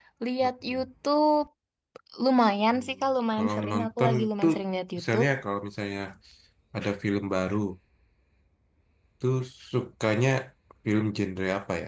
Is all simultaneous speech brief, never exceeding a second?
No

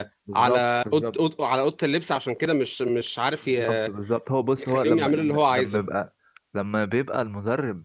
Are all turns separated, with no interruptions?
No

